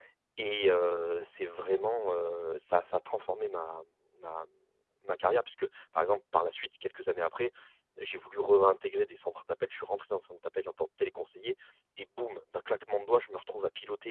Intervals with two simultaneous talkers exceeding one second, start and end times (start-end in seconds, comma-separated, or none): none